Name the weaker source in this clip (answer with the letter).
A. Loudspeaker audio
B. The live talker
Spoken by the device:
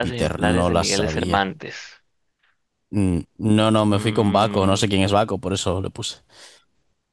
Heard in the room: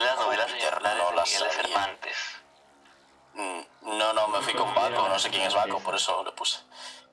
B